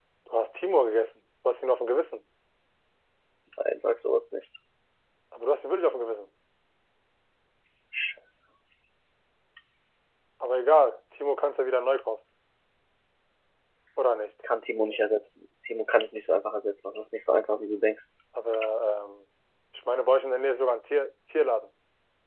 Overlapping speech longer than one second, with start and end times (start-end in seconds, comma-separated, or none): none